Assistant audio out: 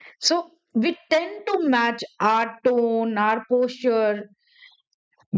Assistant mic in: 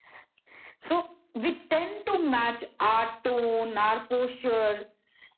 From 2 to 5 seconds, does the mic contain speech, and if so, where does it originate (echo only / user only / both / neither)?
echo only